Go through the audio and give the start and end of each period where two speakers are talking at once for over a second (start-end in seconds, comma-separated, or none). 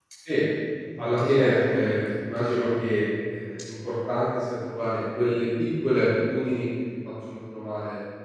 1.0-2.7